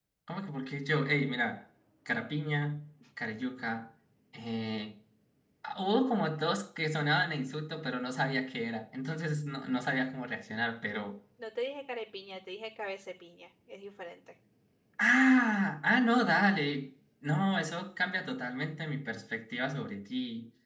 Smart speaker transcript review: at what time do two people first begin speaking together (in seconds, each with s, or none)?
none